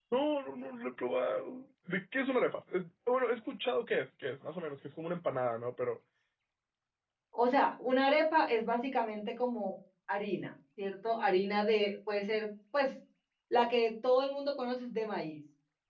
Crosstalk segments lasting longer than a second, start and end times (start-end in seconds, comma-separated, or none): none